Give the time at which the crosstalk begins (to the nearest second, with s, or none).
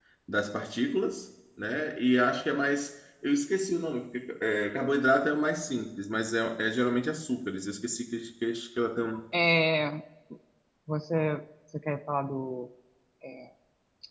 none